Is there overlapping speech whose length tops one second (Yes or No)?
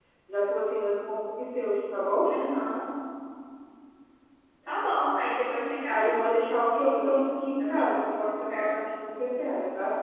Yes